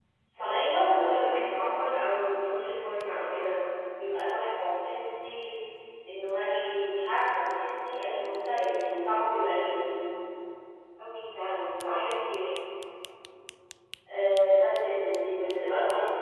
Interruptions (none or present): present